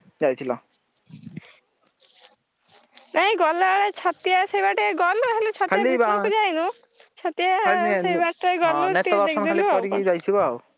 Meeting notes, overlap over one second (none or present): present